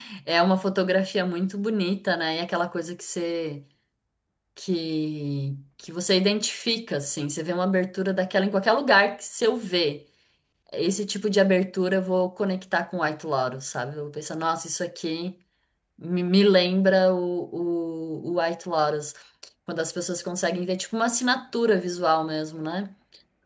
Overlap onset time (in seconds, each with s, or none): none